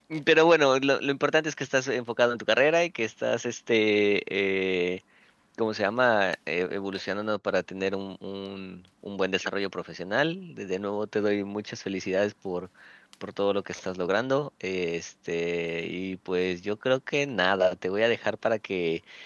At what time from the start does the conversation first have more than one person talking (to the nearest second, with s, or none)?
none